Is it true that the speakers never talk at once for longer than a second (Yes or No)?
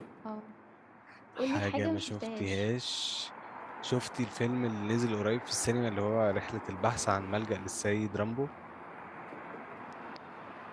No